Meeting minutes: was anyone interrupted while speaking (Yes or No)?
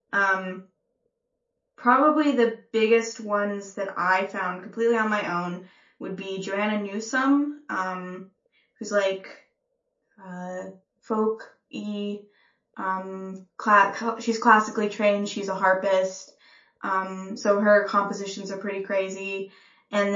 No